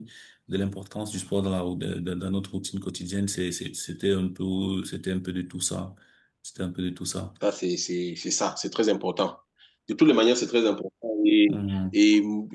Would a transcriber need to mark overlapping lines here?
No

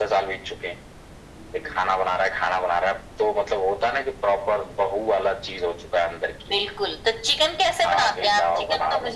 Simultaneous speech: Yes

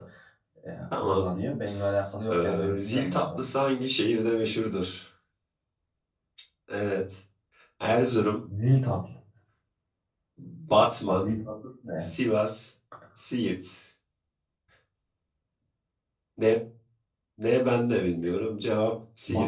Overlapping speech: Yes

